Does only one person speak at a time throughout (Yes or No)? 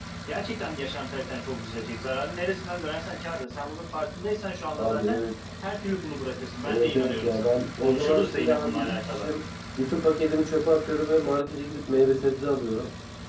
No